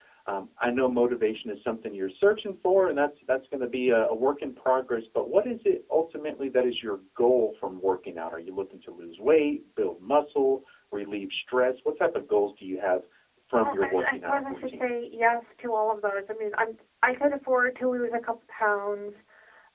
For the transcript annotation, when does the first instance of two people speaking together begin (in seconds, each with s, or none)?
13.6 s